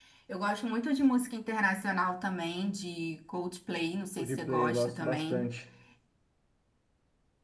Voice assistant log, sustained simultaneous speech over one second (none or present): present